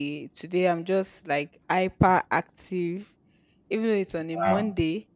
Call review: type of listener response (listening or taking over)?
listening